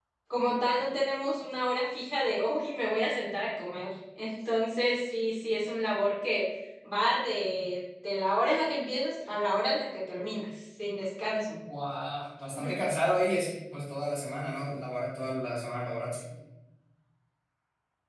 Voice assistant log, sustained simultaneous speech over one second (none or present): none